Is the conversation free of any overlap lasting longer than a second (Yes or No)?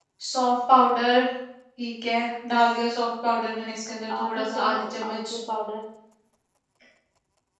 No